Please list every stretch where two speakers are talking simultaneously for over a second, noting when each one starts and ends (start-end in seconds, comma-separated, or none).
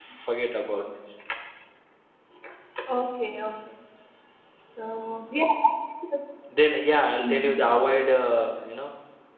none